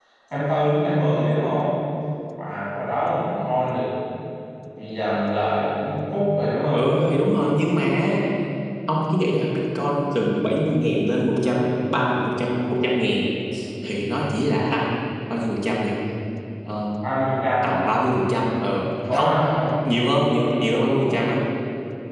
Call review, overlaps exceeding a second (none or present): none